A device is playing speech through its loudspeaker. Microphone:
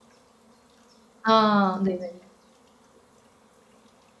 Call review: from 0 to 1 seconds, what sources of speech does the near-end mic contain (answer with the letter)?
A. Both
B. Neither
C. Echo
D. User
B